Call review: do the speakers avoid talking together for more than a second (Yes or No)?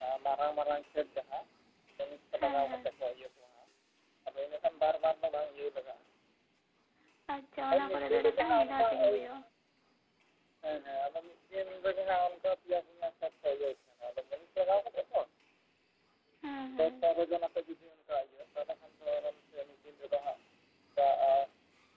No